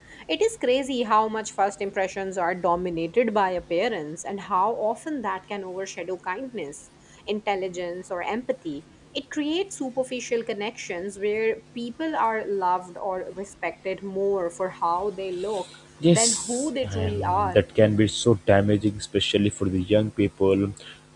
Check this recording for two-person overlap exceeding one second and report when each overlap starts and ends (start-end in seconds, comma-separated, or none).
16.1-17.6